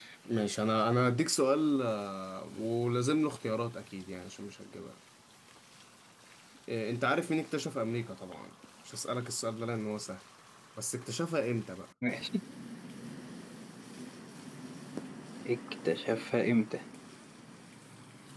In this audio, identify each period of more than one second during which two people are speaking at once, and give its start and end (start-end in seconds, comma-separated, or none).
none